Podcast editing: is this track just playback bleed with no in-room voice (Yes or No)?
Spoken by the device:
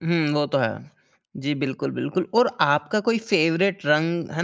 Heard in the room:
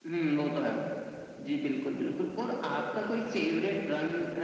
Yes